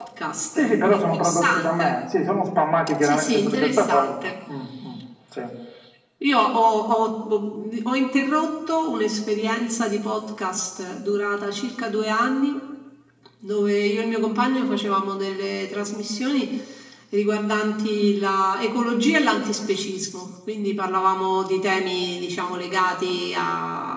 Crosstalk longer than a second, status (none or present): present